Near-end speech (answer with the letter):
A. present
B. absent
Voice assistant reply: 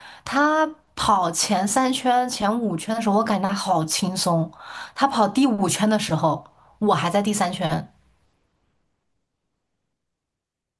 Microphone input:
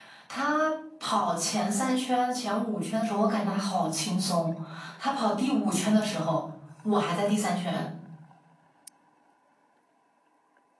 B